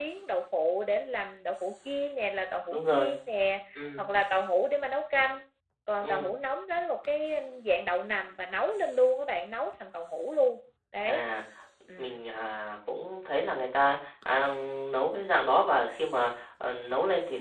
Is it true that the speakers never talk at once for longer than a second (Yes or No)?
Yes